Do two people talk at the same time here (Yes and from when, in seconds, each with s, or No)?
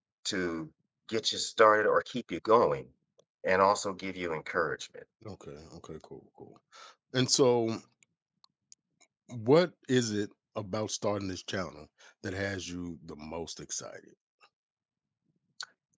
No